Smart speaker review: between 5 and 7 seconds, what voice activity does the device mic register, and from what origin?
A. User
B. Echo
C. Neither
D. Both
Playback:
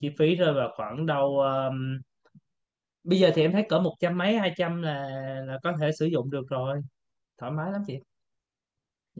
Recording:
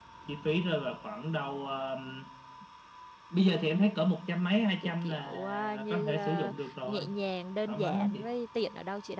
D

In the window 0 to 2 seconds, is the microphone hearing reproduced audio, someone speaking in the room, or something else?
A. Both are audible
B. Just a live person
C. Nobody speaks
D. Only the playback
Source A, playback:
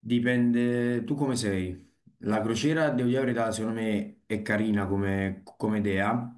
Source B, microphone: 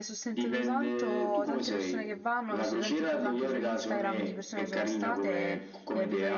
A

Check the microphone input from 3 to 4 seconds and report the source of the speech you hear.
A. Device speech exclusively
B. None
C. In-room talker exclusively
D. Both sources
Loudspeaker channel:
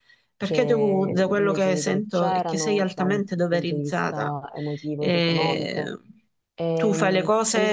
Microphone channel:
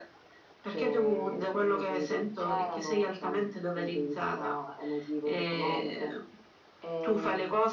A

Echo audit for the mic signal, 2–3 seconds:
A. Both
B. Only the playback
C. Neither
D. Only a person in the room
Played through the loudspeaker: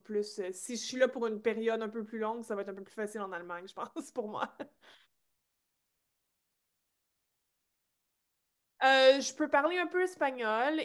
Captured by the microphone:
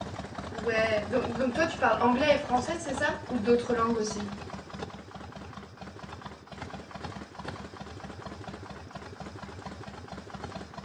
D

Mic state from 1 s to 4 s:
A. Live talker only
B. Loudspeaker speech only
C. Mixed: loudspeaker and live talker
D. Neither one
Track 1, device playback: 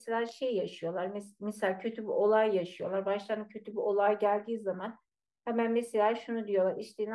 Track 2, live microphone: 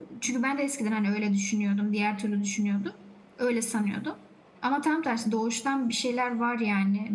A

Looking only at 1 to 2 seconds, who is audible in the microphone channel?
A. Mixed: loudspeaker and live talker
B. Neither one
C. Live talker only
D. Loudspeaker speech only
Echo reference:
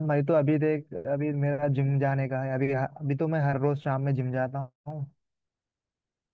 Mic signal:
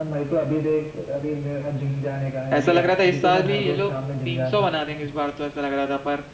D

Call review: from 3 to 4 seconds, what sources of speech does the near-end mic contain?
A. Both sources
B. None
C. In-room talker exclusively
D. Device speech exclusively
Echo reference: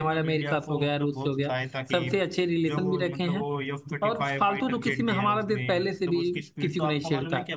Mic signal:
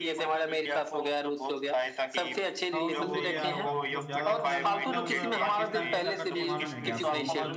A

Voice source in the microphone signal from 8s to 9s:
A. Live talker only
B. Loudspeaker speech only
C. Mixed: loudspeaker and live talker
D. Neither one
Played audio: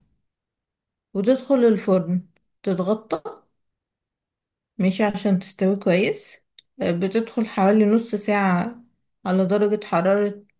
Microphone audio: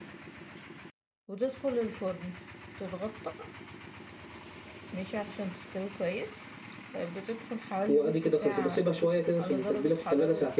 C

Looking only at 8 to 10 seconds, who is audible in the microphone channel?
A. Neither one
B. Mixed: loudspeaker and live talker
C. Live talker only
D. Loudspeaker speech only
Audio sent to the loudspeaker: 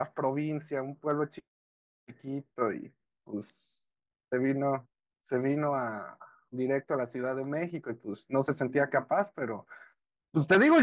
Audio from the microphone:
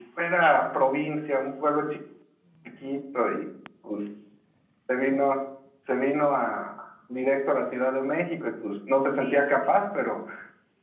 B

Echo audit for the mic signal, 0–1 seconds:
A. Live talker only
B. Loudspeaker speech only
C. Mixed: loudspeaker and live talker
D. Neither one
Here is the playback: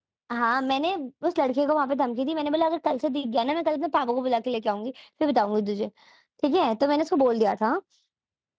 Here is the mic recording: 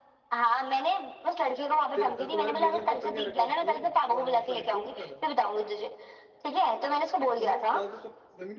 B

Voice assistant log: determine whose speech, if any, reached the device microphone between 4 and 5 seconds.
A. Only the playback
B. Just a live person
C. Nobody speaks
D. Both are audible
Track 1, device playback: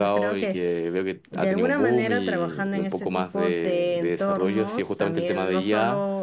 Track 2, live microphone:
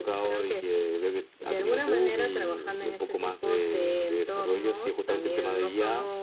A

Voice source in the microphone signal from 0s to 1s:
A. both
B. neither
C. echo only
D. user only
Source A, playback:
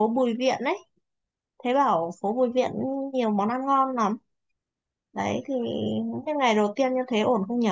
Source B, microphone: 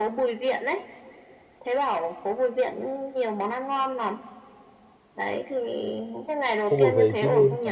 C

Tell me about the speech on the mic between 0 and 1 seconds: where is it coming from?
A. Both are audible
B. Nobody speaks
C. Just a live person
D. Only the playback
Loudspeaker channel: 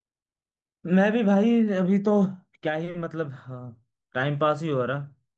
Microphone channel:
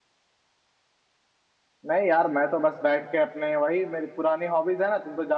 B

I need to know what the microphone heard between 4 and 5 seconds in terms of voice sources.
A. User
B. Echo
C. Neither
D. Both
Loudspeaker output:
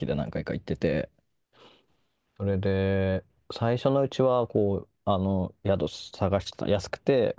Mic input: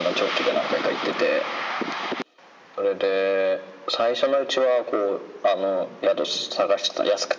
B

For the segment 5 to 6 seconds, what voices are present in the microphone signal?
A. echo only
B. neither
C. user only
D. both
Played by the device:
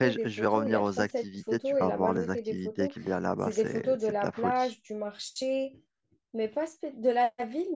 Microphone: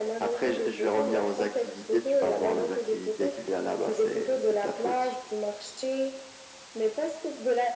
A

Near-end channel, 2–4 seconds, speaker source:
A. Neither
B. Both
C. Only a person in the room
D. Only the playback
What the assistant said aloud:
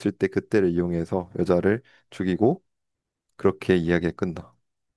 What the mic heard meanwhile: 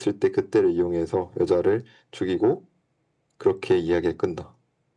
D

